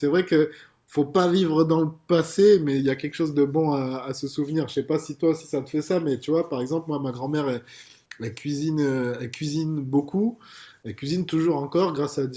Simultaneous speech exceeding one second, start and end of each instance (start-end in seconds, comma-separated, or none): none